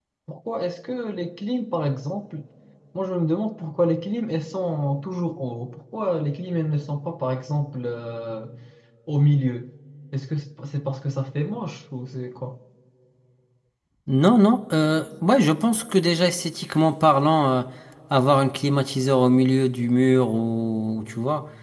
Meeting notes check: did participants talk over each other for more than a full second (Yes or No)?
No